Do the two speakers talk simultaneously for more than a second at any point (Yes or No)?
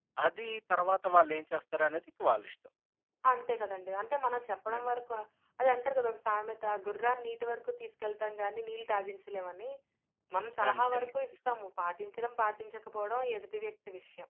No